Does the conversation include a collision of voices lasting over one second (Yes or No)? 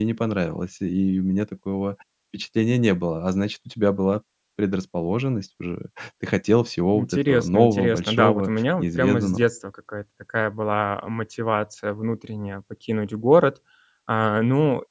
Yes